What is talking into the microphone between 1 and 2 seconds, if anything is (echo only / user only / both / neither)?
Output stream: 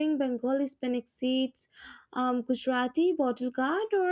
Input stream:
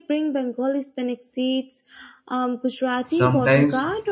echo only